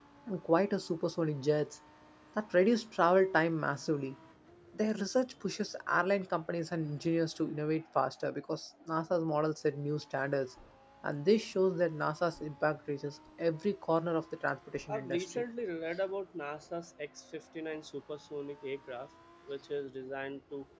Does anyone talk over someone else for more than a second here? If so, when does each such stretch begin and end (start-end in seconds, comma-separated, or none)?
none